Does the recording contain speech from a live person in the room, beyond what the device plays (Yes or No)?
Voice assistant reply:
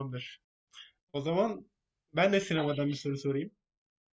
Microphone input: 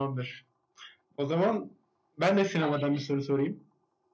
No